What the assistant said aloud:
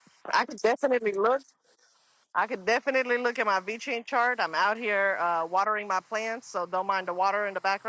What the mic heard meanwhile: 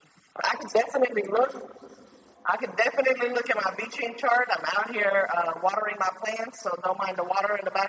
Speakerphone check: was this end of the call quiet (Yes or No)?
Yes